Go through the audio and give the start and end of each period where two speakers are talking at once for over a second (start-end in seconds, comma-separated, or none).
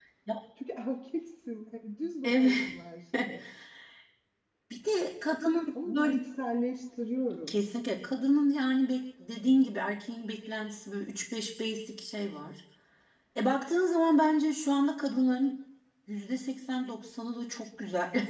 none